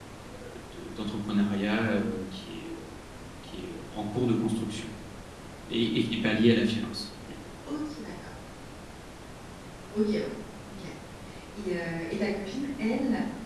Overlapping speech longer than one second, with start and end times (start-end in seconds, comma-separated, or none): none